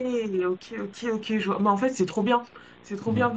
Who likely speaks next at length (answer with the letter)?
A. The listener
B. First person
B